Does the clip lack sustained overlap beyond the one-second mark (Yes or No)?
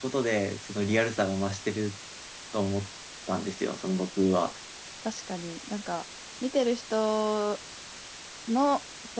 Yes